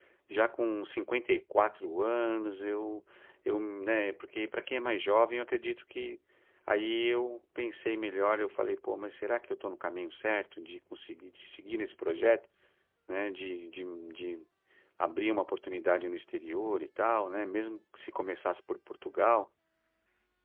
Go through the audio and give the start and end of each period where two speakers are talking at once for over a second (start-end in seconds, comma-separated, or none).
none